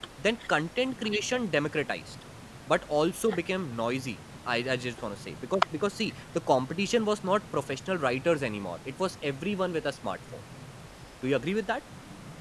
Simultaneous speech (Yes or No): No